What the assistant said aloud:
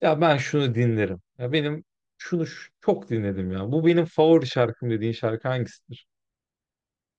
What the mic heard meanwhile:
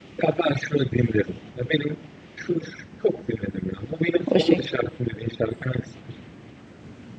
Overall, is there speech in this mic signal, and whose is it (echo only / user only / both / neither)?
both